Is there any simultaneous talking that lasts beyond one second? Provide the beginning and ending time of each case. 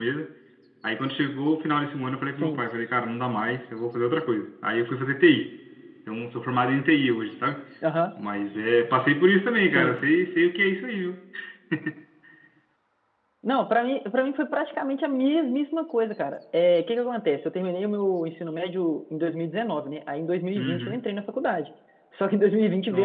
none

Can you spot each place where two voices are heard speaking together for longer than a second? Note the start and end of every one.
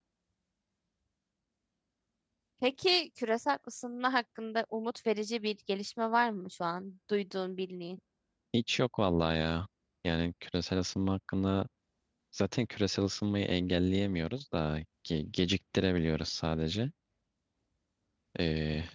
none

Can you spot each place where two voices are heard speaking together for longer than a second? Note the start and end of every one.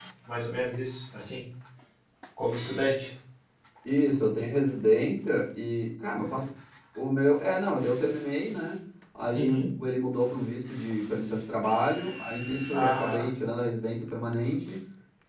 none

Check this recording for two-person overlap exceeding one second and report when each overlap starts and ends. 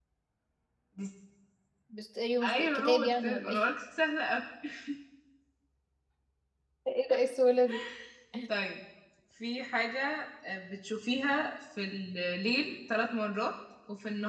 2.4-3.7

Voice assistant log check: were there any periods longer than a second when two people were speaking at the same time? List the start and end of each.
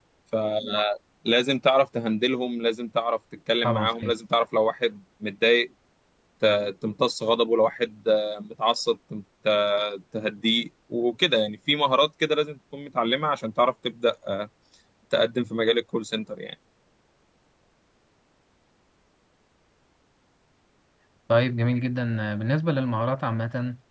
none

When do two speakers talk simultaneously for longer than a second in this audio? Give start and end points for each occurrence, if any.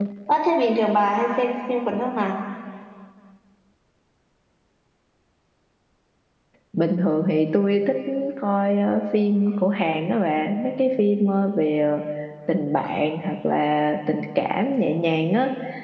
none

